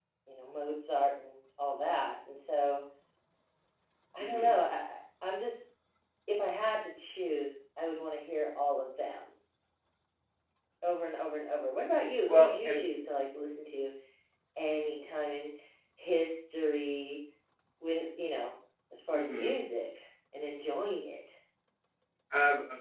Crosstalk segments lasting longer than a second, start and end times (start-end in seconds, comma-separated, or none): none